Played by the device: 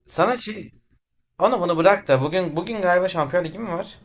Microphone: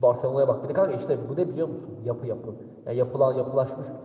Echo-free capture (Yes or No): Yes